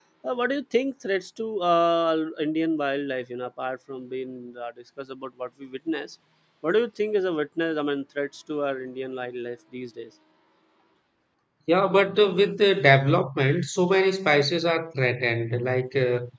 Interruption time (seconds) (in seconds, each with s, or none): none